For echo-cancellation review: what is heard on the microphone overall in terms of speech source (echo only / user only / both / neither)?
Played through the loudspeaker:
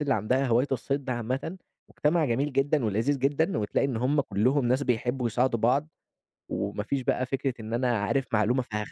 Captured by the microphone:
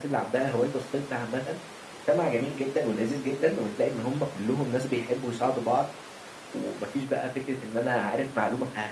echo only